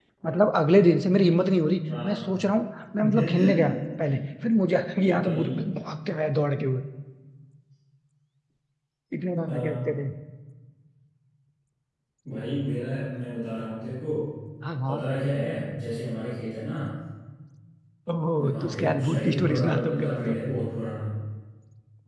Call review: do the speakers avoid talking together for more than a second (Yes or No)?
No